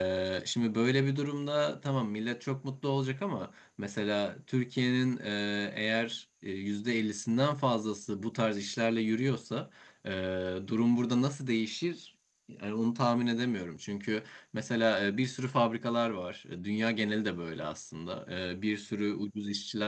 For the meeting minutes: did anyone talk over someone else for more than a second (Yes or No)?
No